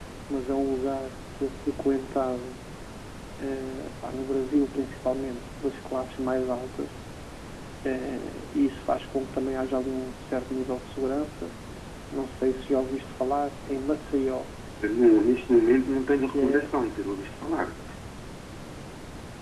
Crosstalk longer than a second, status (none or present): none